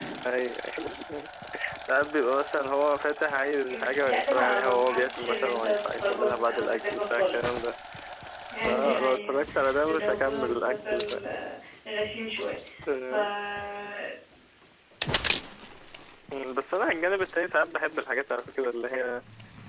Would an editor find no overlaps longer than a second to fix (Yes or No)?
No